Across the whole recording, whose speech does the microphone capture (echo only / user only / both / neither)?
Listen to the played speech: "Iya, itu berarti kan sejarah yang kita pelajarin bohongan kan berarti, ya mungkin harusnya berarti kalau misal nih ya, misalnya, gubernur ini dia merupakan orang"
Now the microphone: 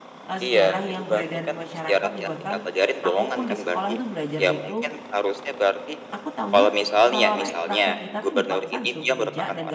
both